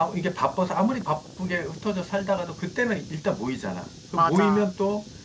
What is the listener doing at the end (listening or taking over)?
listening